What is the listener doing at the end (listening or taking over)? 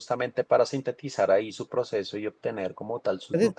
taking over